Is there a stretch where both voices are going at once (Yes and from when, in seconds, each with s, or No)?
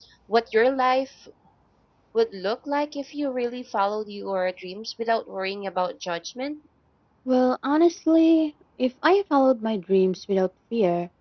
No